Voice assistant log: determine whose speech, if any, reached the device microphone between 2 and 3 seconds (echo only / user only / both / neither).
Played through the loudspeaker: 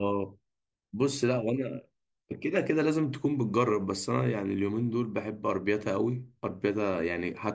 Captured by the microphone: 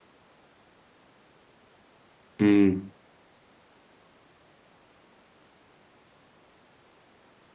user only